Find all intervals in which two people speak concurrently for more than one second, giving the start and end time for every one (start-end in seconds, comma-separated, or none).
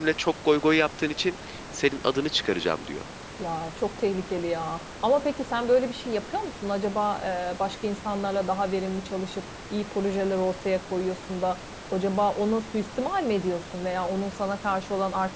none